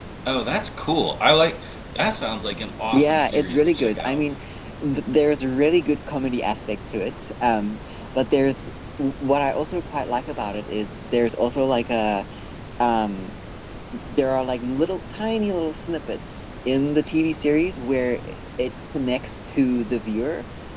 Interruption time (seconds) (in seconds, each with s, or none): 2.9 s